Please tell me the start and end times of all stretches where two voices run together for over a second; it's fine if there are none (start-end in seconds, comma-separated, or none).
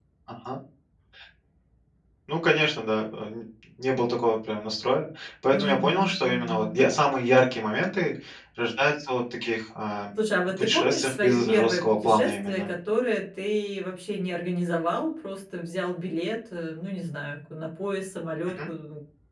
5.5-6.8, 10.6-12.7